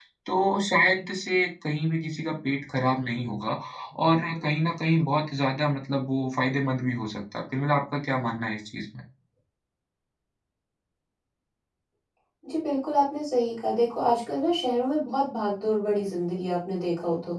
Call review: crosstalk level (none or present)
none